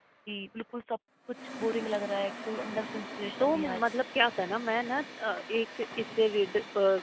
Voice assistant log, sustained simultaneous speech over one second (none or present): none